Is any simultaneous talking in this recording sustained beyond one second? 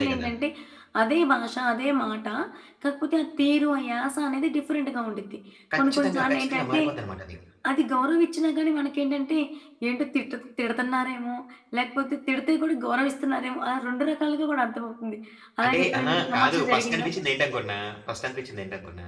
Yes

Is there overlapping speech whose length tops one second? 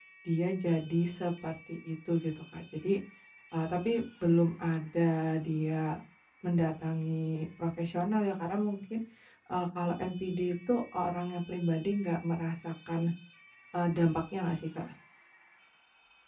No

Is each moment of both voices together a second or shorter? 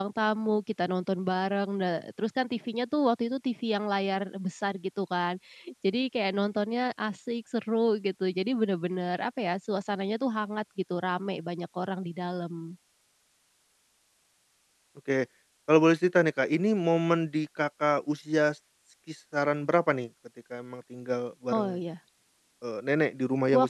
Yes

